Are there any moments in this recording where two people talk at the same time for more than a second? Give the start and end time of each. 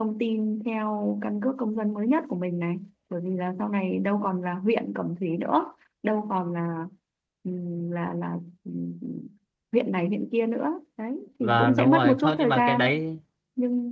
11.4-12.9

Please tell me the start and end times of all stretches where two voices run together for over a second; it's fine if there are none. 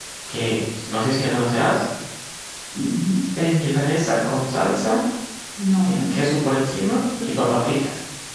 none

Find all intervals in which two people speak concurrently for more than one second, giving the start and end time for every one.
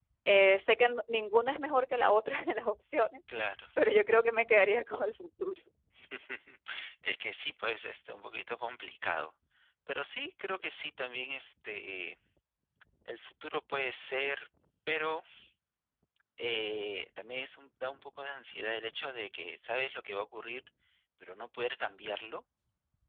none

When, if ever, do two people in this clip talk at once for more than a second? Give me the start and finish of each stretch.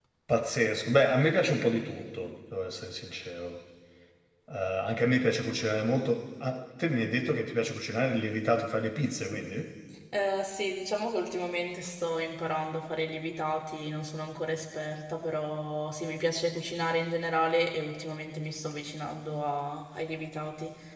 none

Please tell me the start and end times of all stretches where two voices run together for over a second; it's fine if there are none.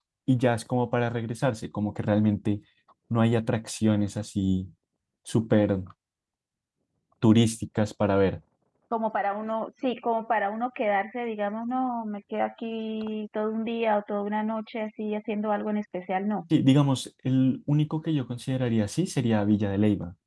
none

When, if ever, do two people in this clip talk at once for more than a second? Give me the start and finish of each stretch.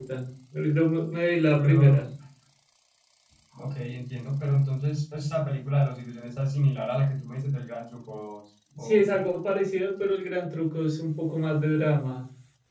none

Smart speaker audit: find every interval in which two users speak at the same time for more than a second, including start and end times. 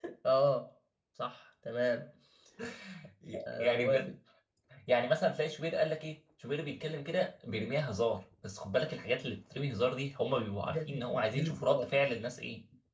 10.7-11.9

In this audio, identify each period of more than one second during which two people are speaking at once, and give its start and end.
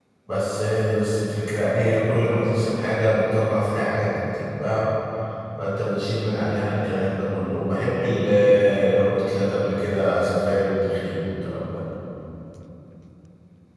none

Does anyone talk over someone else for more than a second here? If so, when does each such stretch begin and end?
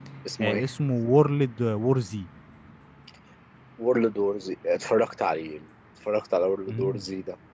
none

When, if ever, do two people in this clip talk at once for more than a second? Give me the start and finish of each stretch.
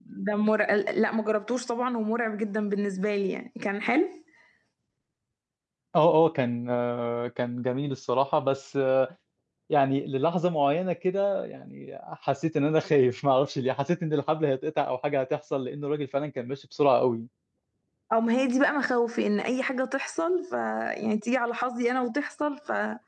none

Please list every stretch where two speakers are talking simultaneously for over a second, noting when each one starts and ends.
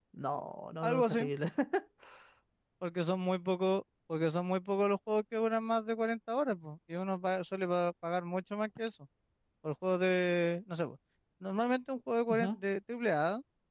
none

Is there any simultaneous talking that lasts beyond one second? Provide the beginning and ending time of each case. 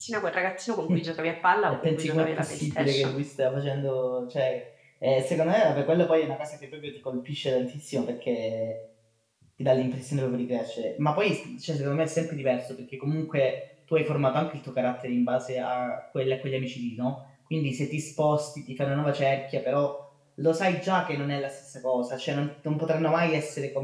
1.7-3.1

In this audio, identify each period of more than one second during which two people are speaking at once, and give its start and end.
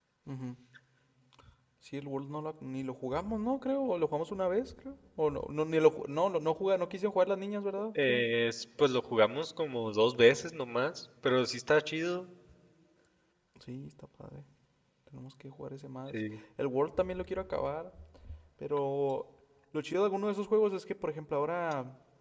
none

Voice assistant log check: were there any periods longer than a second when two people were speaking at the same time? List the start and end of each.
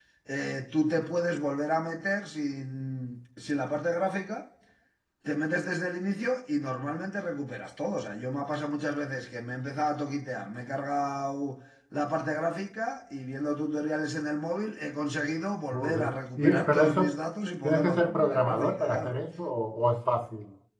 15.7-17.1, 17.6-19.2

